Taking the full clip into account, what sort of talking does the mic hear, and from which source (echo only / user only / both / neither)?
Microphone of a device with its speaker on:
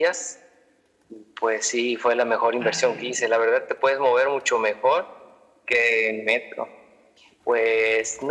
both